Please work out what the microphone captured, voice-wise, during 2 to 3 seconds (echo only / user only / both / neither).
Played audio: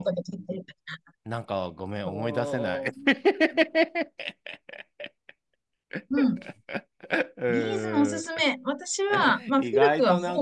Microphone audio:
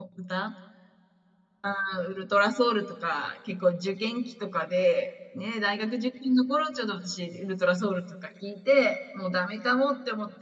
user only